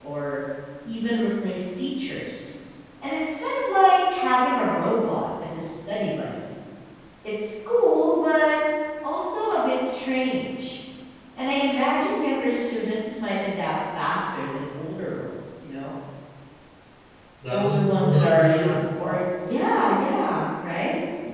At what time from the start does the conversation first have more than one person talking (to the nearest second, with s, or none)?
18 s